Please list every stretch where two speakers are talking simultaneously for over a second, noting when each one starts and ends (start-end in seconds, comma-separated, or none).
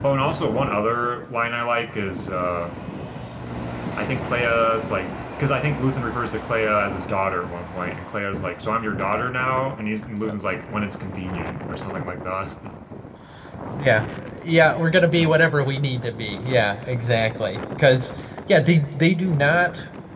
none